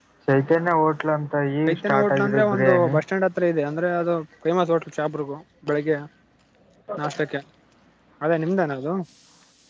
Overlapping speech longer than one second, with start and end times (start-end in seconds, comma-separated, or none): 1.7-3.0